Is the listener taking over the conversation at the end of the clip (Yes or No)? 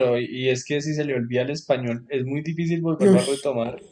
No